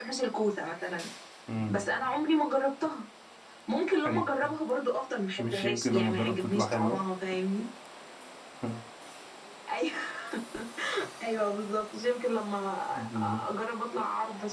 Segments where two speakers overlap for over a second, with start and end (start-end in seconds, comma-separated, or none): 5.4-7.0